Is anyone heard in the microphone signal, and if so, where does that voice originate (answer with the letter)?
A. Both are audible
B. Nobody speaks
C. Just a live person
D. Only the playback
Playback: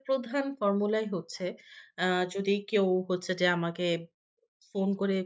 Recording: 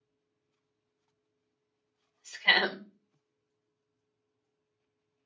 C